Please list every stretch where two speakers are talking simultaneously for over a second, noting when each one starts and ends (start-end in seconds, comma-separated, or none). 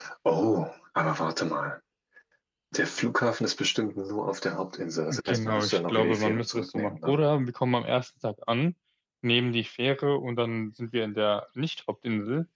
5.1-7.2